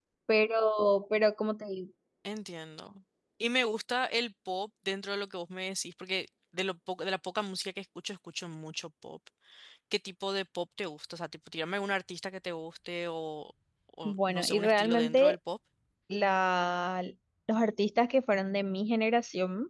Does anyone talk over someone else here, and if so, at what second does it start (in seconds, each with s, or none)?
14.1 s